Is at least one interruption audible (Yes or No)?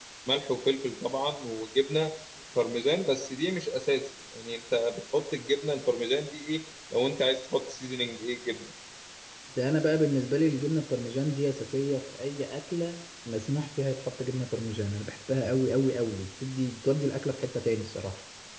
No